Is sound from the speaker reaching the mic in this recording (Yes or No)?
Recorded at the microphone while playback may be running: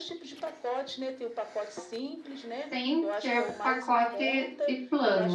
Yes